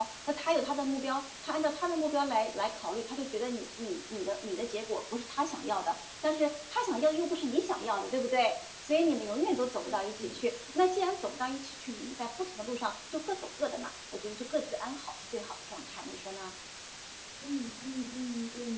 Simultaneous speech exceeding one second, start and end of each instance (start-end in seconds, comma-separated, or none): none